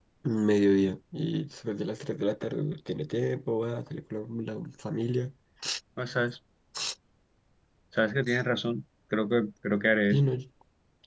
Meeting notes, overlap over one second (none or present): none